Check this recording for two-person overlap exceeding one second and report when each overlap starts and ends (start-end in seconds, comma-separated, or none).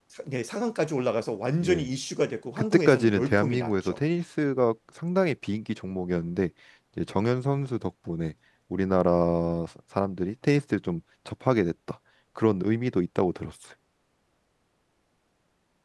2.6-4.0